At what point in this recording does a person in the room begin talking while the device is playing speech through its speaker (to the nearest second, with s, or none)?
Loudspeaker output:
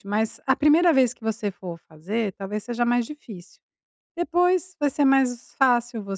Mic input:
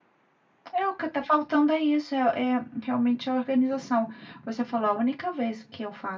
1 s